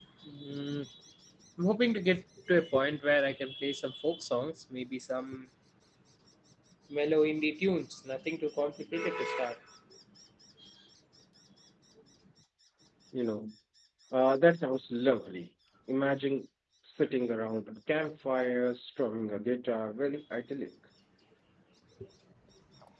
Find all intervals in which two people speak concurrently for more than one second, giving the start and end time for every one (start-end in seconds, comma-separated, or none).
none